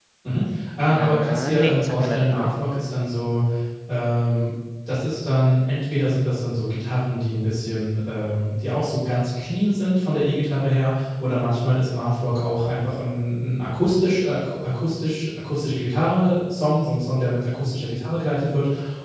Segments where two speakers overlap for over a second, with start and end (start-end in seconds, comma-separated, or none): 0.9-2.5